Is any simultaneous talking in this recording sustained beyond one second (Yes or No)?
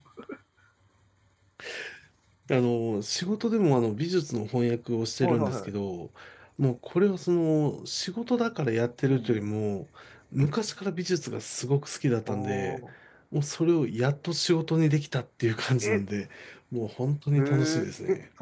No